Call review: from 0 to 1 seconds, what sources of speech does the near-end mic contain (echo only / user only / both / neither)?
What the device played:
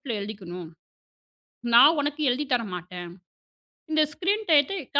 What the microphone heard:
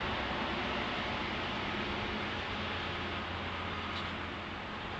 neither